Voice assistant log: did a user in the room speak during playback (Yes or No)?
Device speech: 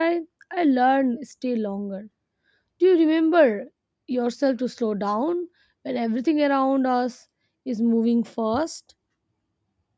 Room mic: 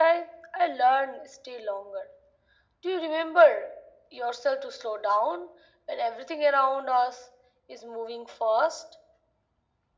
No